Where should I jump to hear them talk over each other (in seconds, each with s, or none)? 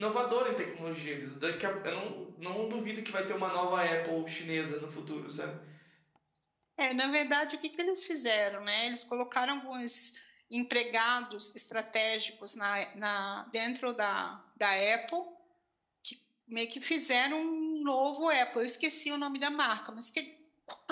none